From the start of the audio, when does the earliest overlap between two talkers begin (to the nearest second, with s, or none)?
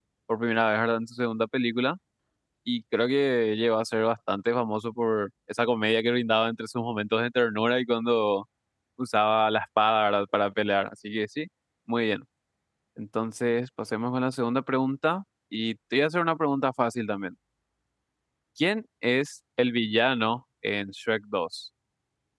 none